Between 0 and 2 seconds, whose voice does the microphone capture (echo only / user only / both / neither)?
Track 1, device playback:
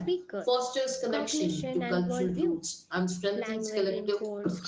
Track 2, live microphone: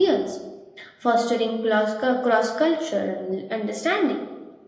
user only